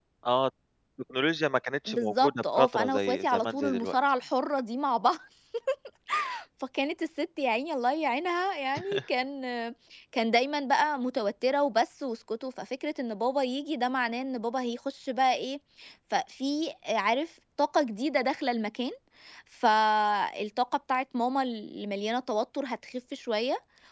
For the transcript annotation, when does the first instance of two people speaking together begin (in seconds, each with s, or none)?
1.9 s